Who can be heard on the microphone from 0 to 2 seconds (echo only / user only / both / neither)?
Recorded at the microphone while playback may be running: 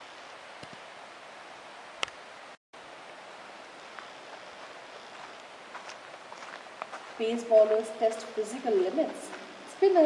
neither